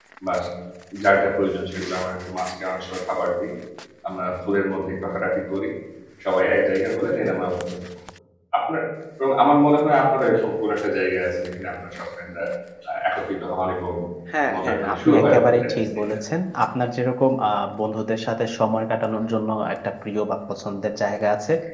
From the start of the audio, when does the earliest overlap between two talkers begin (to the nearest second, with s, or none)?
15 s